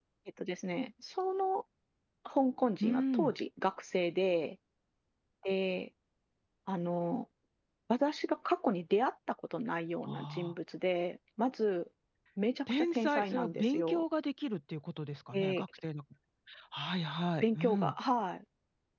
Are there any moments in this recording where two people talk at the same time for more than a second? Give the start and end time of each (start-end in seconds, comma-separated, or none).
12.7-14.0